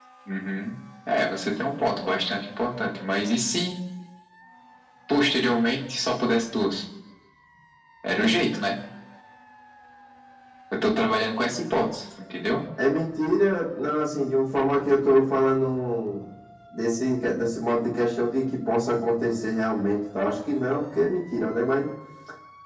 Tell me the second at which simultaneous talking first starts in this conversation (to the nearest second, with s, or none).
none